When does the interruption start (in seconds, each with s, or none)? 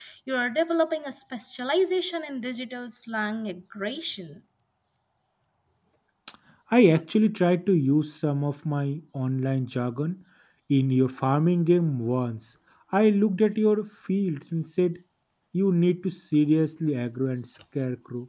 none